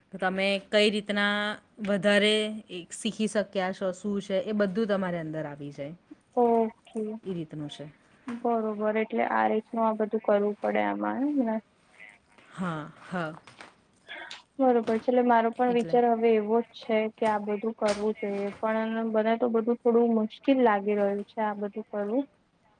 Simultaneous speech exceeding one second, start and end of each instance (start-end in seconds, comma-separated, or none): none